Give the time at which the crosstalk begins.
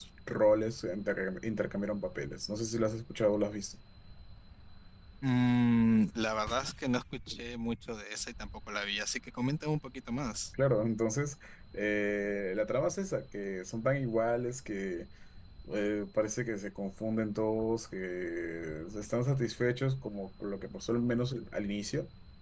none

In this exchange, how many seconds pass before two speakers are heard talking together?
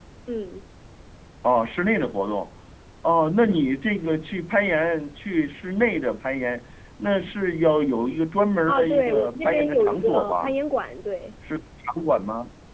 9 s

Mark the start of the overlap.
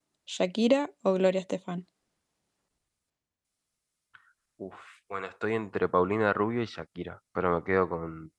none

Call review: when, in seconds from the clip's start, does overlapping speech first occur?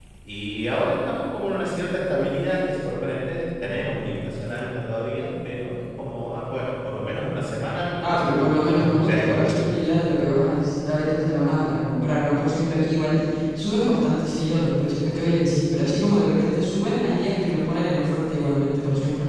8 s

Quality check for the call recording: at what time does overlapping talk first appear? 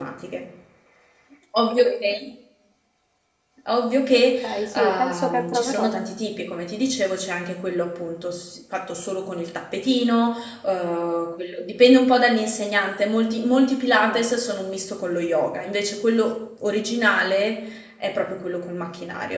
4 s

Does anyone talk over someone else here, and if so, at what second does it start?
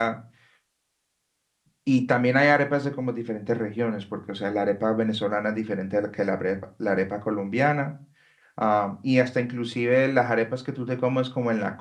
none

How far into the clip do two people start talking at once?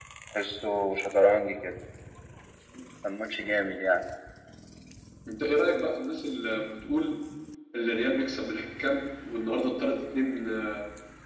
none

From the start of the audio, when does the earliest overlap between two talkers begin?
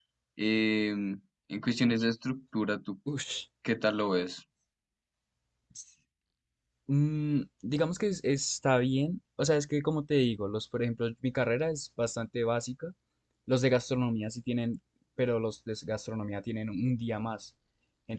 none

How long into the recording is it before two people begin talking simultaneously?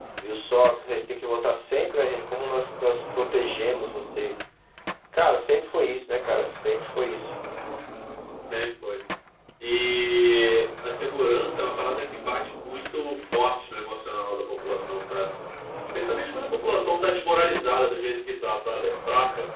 none

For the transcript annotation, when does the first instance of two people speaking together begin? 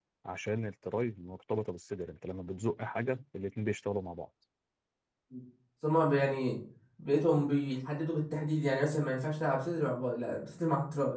none

